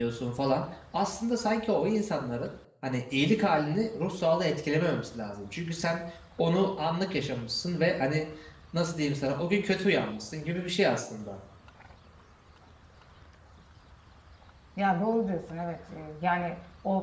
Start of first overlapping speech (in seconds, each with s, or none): none